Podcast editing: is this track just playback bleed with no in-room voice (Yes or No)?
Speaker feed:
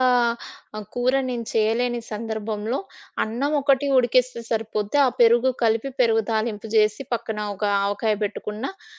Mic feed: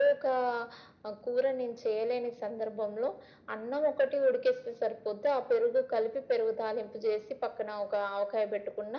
Yes